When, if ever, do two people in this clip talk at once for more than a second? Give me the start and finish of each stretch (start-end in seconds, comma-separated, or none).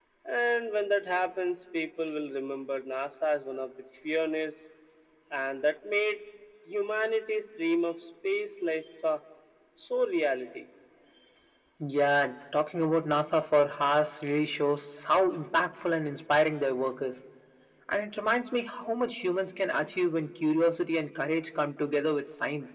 none